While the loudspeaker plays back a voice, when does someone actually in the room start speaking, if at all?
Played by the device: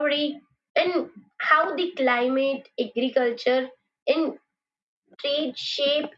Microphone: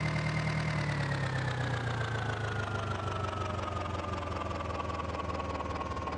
none

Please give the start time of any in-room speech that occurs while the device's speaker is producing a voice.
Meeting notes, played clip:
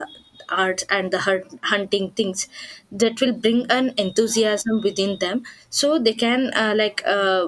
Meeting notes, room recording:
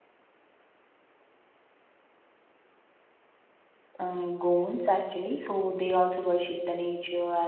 4.0 s

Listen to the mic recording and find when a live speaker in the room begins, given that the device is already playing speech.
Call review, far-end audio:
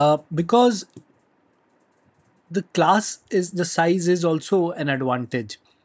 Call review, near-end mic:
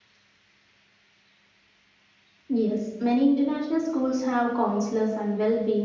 2.5 s

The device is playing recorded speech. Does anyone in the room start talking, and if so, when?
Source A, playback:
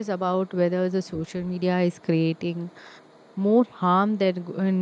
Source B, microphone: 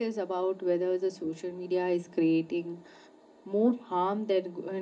none

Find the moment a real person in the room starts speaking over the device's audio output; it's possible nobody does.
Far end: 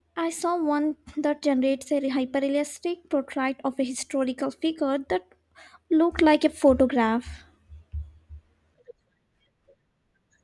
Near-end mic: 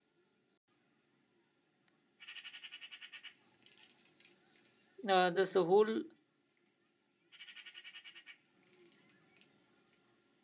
5.0 s

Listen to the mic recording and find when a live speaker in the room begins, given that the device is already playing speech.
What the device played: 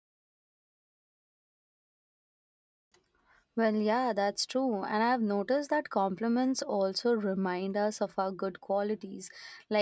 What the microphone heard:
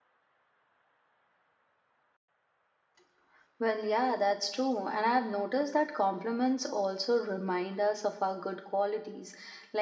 none

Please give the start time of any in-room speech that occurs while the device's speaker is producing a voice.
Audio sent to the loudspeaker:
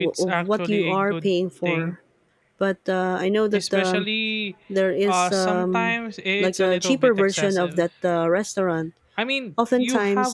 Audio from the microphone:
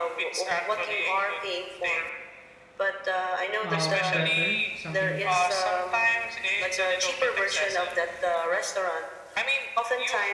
3.6 s

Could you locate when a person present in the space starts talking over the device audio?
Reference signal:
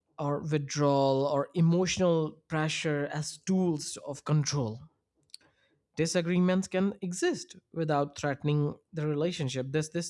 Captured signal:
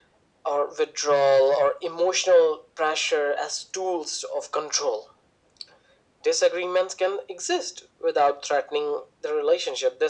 none

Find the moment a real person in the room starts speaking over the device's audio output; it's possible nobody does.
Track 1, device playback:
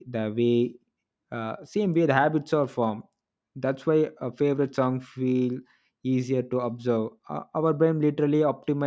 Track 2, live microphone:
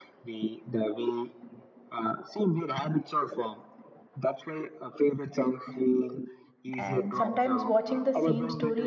6.7 s

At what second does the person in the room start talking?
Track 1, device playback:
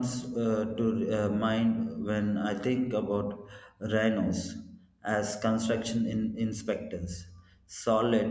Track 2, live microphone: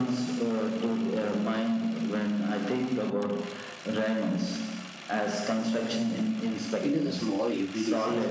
6.9 s

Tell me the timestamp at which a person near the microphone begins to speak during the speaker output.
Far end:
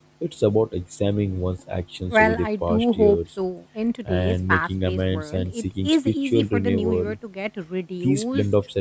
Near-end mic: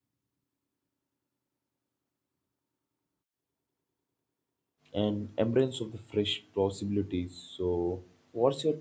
4.9 s

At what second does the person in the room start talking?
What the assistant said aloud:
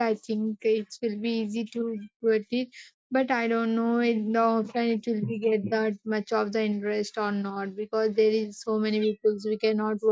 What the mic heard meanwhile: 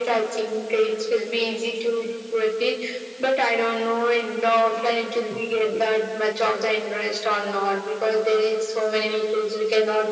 none

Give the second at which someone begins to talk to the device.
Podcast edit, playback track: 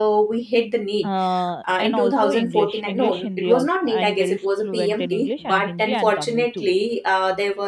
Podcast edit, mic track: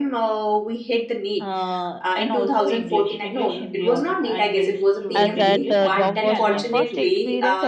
5.2 s

